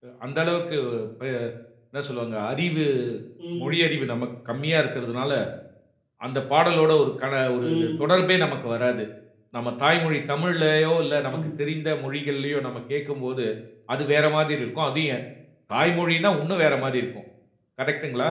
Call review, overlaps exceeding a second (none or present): none